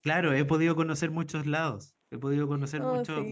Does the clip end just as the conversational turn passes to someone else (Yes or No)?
No